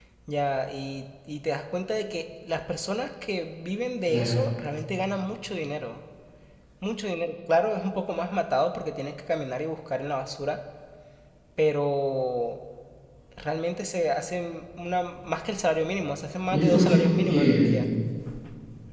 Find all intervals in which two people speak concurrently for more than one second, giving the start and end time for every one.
16.5-17.9

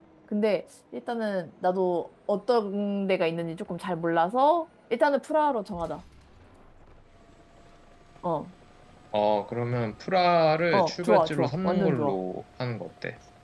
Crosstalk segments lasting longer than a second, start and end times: 10.7-12.2

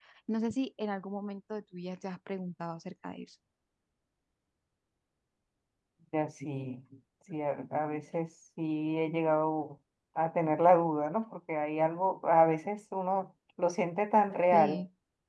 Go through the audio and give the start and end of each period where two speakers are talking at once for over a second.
none

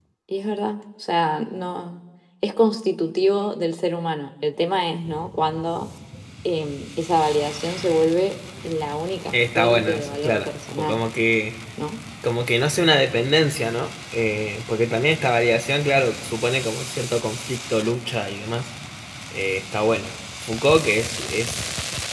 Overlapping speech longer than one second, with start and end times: 9.3-11.0

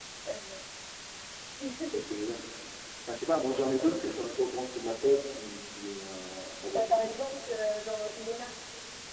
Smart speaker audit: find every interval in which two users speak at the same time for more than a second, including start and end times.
none

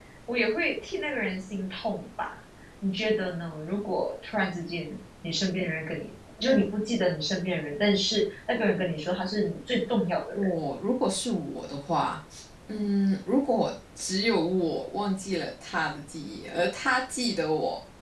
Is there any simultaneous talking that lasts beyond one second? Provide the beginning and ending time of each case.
none

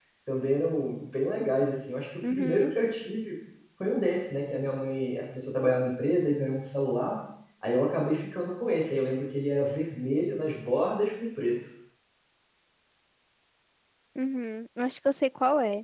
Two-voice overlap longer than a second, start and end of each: none

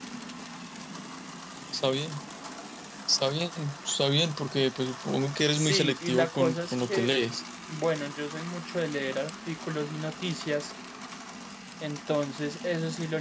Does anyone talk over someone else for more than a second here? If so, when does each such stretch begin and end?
5.5-7.1

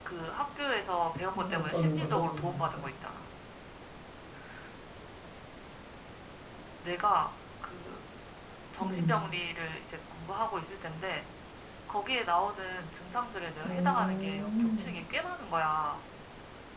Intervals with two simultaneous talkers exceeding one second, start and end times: 1.4-2.8, 13.6-14.9

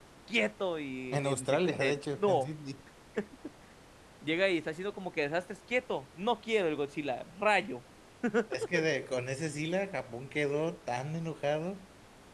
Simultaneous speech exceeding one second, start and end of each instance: 1.1-2.5

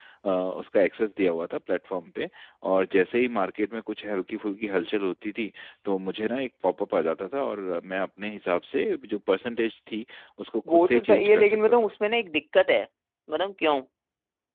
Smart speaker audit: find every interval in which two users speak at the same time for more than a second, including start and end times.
10.7-11.9

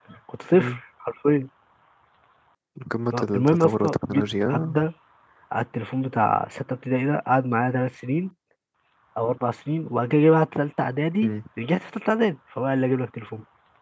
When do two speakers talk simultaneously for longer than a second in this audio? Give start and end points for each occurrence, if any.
3.4-4.8

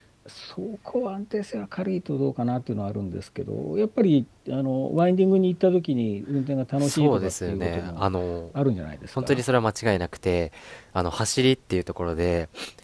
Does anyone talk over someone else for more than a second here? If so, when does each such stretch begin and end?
6.8-8.1

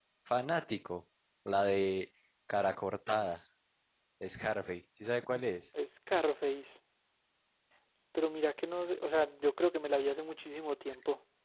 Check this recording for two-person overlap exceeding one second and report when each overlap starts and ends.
none

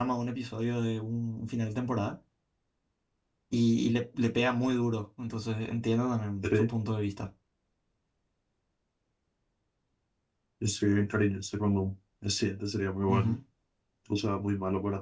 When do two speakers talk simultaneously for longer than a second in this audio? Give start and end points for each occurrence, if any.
none

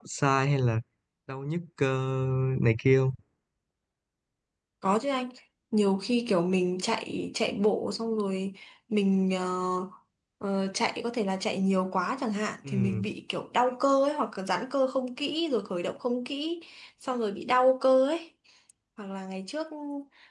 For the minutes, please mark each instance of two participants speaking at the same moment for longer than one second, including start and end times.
none

